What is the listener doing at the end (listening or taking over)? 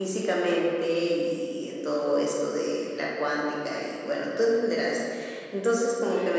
listening